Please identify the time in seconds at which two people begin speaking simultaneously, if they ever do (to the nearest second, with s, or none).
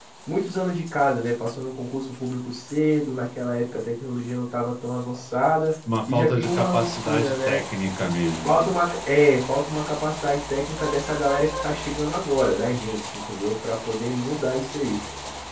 6 s